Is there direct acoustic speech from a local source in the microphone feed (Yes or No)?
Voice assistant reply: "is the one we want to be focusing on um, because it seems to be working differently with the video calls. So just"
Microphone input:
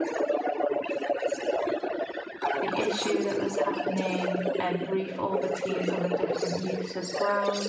Yes